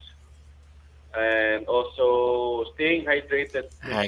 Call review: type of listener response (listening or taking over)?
listening